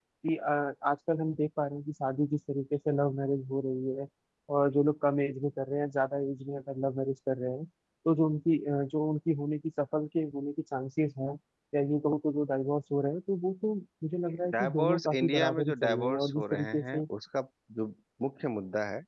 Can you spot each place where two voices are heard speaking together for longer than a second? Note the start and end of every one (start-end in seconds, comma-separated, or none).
14.5-17.0